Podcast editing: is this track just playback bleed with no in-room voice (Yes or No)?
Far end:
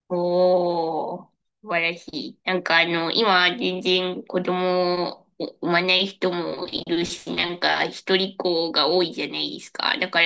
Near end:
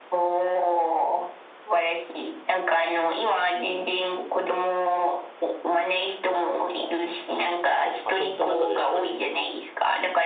No